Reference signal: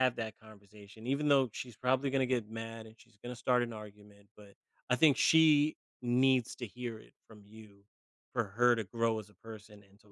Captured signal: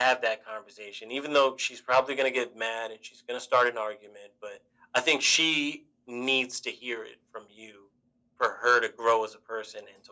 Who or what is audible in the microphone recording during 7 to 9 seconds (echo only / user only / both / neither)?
echo only